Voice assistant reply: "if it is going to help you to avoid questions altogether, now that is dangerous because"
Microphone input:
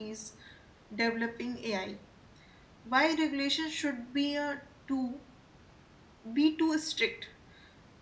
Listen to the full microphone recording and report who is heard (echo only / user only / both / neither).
user only